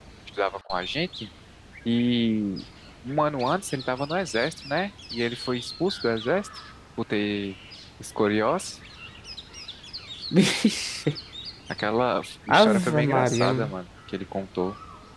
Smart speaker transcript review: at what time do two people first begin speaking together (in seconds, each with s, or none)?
12.5 s